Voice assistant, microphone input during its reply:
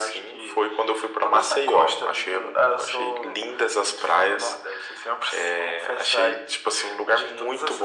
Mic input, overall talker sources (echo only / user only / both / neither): echo only